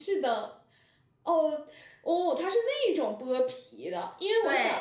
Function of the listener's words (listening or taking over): listening